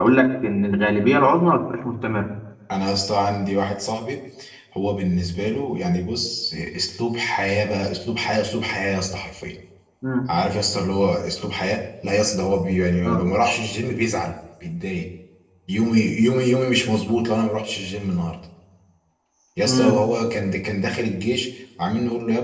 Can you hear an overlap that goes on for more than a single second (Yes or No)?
No